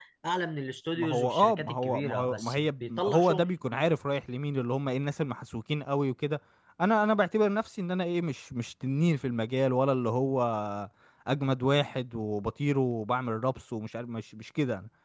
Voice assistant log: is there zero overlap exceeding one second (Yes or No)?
No